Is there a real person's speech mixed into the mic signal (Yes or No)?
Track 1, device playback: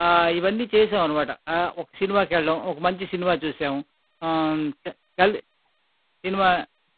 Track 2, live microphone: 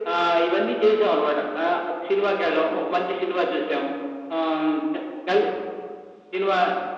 No